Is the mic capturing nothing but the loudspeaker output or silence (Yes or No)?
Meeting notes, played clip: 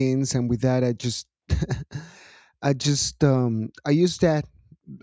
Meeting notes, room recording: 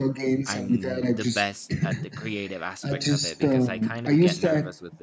No